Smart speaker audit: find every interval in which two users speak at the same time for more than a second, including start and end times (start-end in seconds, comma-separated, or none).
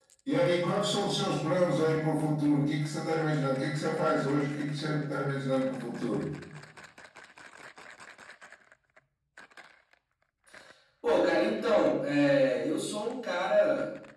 none